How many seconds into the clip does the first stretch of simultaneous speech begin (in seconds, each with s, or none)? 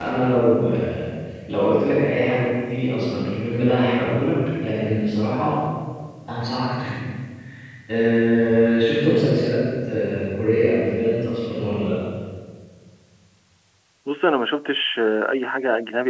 none